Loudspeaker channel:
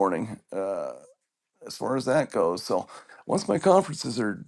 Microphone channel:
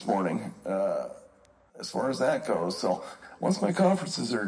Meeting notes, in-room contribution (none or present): none